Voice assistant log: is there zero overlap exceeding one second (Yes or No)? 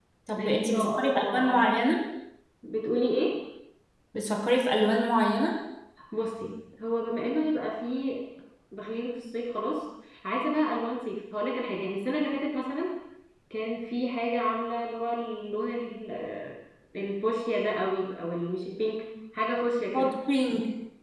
No